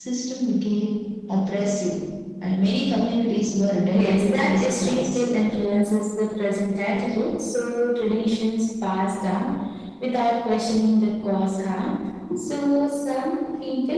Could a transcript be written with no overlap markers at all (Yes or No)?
No